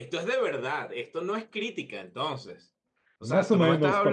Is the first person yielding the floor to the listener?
Yes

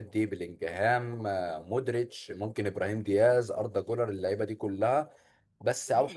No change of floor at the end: Yes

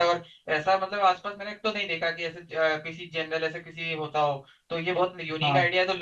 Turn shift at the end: No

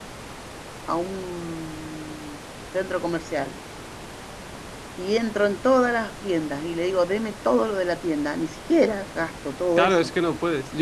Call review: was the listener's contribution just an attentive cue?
No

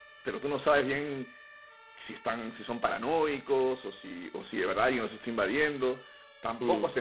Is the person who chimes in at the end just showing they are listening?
Yes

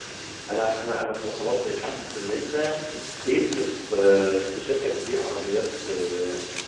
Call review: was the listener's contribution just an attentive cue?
Yes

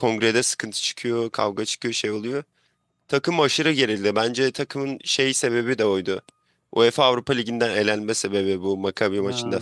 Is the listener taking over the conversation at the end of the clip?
Yes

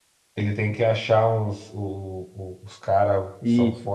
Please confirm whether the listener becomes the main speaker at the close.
No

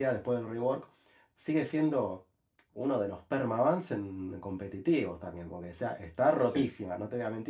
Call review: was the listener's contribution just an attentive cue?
Yes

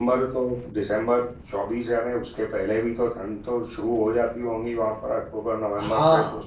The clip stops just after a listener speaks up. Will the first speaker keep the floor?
No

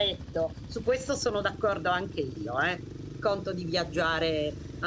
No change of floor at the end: Yes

